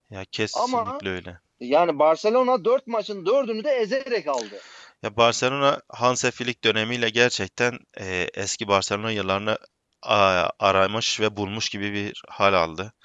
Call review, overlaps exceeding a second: none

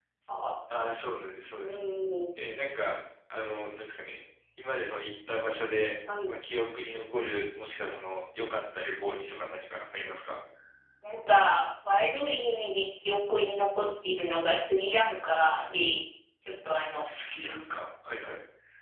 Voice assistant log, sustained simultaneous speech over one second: none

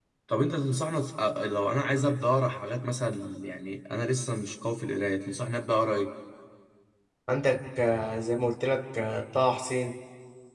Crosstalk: none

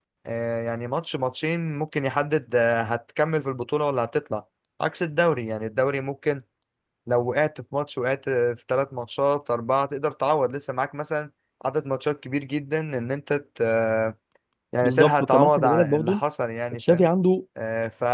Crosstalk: present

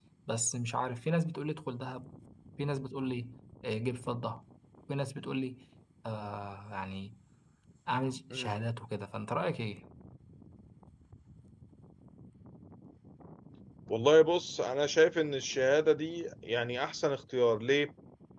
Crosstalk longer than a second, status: none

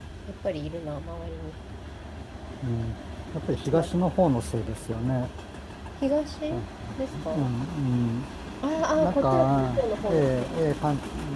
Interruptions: present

